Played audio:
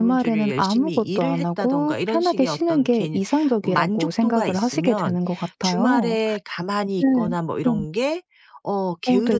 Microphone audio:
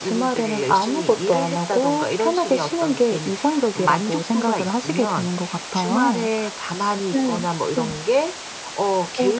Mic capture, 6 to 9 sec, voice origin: echo only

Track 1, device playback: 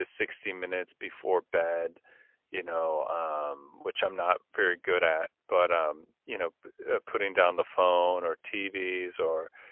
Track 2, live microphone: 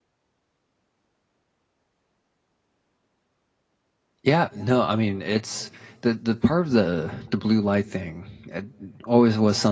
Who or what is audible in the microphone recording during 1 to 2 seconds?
neither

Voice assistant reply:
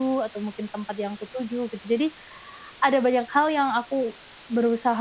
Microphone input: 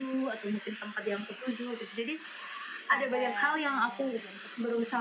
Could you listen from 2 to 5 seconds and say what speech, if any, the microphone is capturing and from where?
both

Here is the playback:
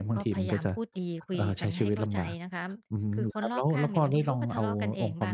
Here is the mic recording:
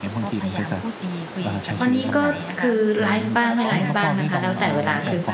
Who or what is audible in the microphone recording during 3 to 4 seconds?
both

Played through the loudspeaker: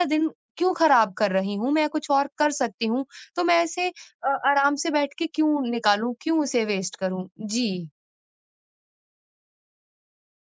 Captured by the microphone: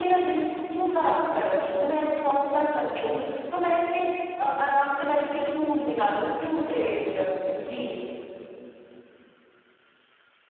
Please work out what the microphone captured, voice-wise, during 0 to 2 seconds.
echo only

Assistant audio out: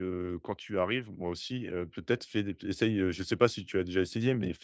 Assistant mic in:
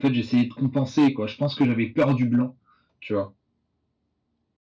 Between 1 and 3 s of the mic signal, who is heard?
user only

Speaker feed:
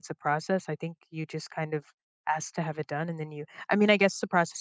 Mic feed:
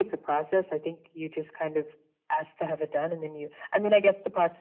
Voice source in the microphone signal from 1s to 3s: echo only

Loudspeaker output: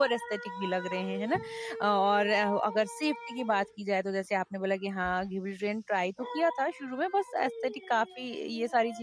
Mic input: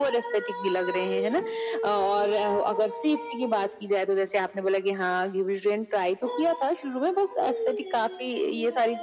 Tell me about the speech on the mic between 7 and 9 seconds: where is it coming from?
echo only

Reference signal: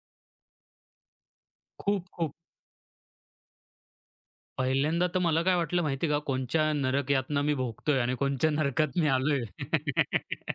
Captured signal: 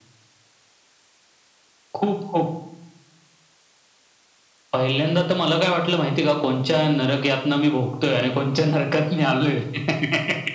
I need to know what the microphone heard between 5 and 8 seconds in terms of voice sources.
echo only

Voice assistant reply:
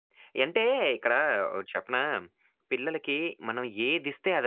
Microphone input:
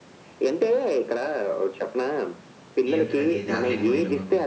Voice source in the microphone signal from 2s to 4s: both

